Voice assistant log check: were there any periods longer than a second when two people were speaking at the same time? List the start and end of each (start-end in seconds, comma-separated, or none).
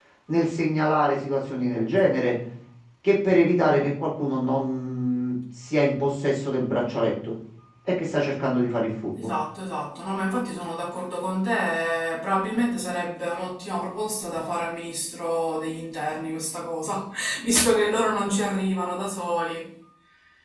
none